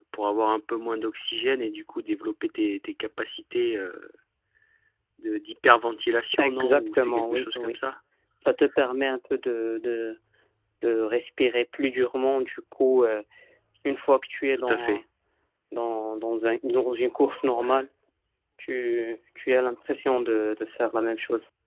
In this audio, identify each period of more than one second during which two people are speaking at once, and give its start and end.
6.4-7.7

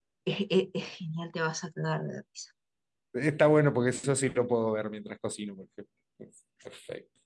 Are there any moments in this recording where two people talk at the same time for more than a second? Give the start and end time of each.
none

